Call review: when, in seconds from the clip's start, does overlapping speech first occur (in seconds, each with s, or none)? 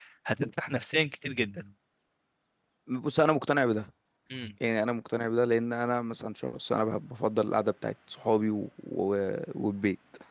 none